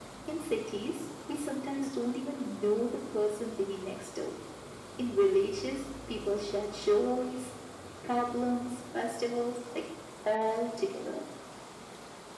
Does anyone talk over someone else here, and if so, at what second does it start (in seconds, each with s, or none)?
none